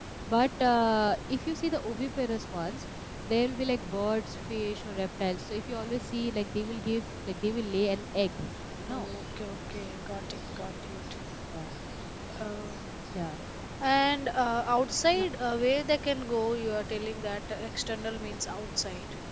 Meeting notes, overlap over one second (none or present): none